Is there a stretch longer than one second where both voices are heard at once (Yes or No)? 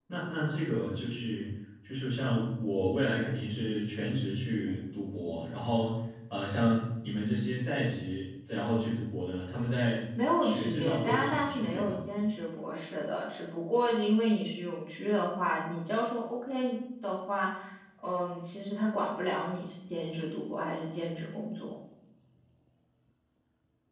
Yes